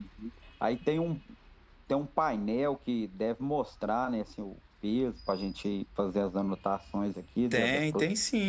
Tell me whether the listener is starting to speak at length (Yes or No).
Yes